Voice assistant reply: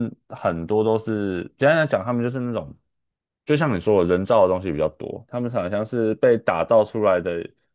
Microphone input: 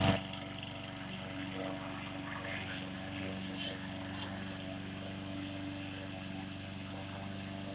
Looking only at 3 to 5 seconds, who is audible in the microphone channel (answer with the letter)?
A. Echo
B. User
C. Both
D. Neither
D